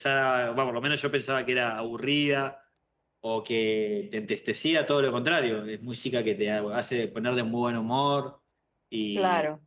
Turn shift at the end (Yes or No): Yes